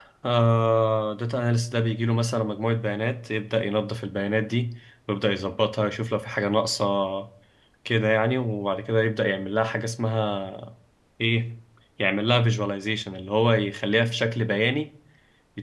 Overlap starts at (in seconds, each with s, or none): none